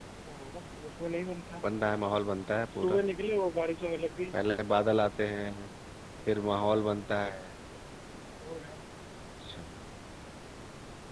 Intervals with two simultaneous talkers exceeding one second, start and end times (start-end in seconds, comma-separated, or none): none